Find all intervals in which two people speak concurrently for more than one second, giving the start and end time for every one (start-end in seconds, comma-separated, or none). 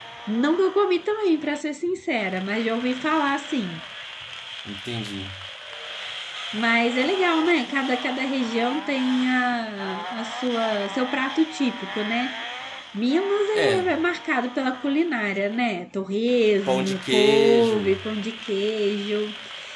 16.7-18.0